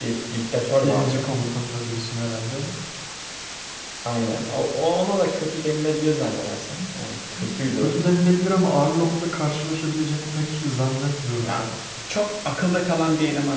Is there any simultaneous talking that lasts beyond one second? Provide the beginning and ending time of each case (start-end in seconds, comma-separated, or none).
none